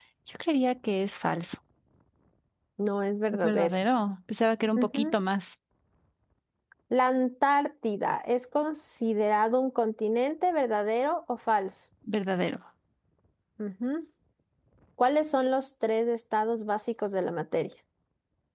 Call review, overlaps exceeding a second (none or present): none